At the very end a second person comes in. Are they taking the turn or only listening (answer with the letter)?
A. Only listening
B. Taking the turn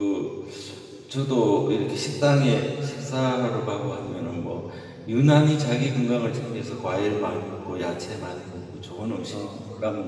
A